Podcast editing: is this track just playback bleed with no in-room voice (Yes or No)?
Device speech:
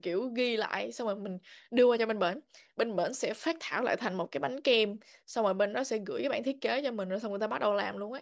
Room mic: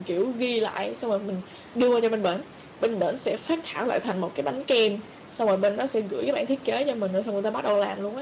Yes